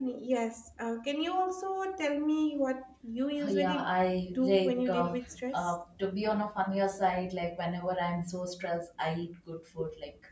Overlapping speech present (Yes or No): Yes